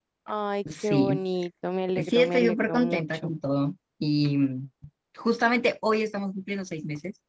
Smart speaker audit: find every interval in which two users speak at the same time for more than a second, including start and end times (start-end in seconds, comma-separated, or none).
2.0-3.3